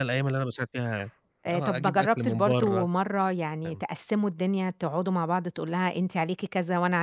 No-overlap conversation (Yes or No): No